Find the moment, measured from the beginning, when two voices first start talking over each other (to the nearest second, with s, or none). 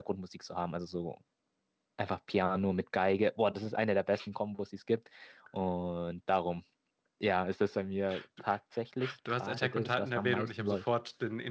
9 s